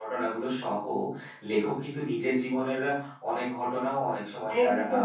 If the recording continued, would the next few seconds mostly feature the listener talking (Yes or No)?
Yes